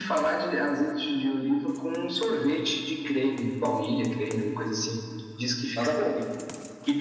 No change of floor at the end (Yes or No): No